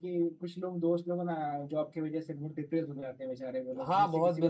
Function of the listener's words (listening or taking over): taking over